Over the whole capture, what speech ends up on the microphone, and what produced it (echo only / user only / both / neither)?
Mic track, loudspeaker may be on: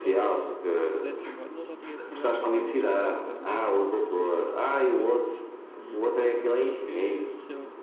both